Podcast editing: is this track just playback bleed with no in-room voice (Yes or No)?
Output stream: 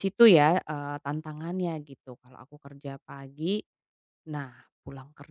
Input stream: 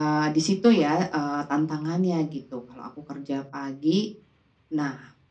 Yes